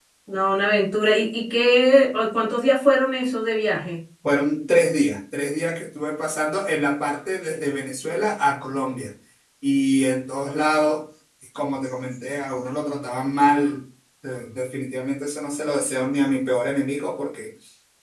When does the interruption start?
none

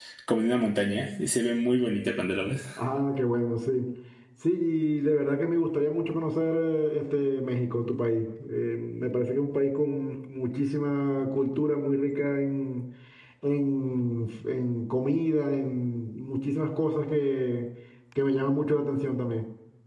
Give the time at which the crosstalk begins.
none

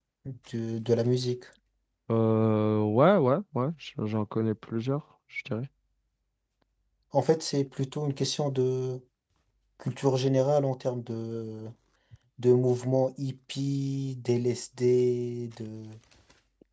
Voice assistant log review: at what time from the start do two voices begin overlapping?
none

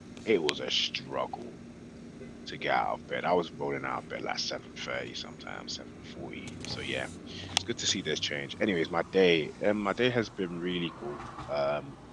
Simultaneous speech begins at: none

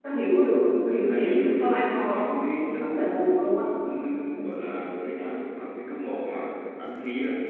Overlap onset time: 1 s

